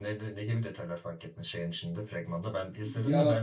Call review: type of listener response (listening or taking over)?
listening